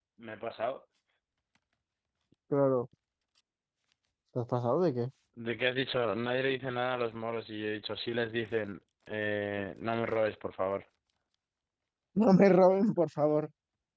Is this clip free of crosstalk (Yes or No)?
Yes